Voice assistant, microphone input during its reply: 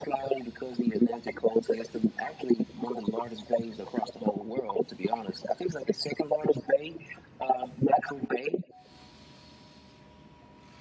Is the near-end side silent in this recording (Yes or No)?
Yes